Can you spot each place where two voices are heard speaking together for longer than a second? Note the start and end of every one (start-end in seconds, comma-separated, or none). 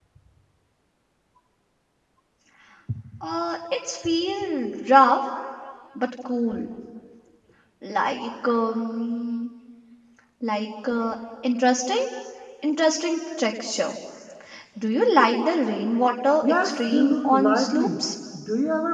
16.4-17.9